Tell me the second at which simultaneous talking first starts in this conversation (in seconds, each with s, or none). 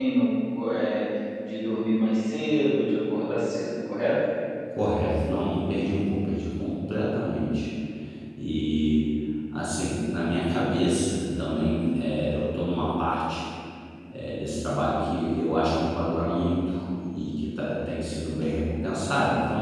none